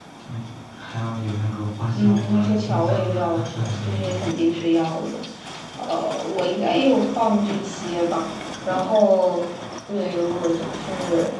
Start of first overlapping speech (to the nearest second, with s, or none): 2 s